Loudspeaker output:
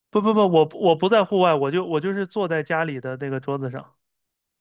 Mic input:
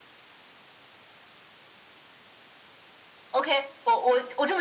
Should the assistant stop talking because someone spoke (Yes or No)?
Yes